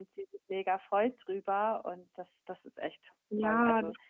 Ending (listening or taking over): taking over